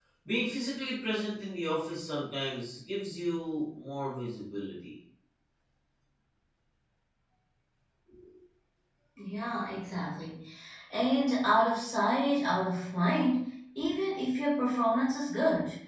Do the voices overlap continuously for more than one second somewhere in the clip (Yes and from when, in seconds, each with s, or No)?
No